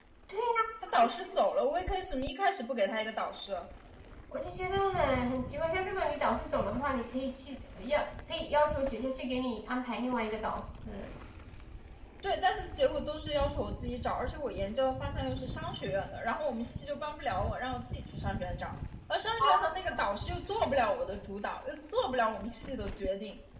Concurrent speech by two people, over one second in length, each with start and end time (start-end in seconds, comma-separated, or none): none